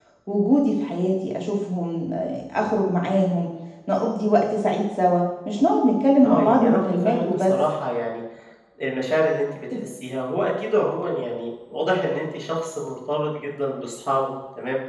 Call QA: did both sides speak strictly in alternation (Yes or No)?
No